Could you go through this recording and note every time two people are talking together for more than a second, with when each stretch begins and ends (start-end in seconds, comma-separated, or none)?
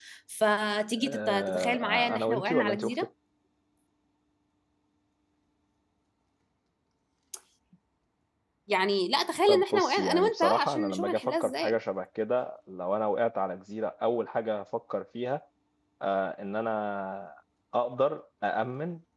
1.1-2.9, 9.5-11.8